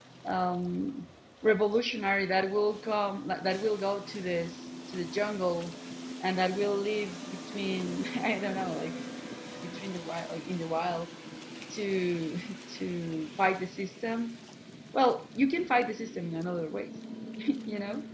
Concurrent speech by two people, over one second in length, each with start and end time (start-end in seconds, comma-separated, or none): none